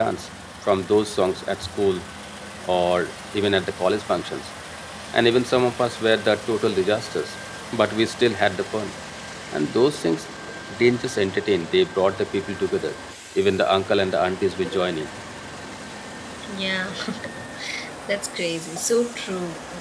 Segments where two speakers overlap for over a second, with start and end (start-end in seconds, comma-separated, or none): none